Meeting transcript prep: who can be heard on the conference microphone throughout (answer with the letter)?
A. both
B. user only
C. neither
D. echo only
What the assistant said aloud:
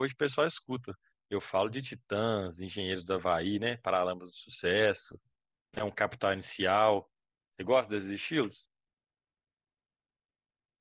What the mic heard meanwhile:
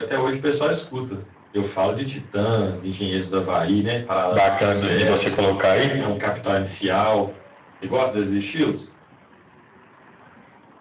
A